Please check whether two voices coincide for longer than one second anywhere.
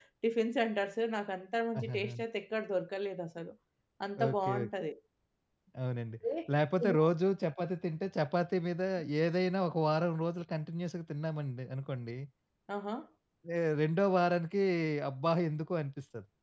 No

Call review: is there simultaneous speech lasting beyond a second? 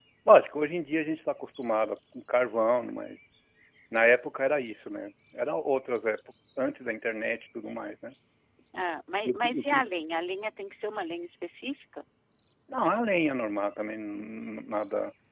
No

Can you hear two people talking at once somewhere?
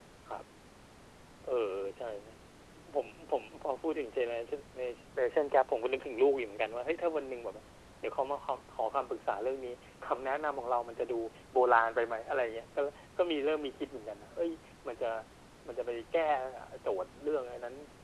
No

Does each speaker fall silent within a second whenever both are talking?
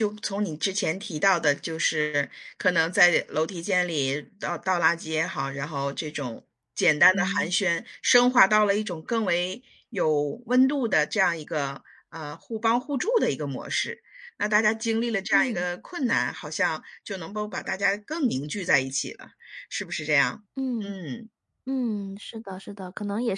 Yes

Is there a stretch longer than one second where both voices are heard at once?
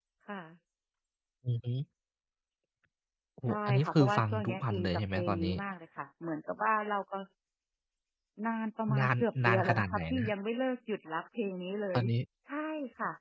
Yes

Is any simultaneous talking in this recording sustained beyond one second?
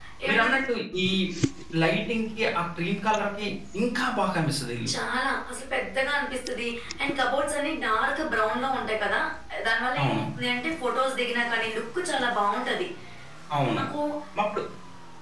No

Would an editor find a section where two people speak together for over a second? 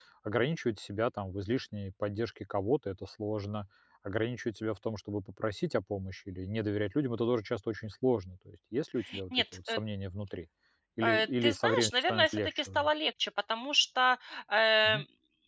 Yes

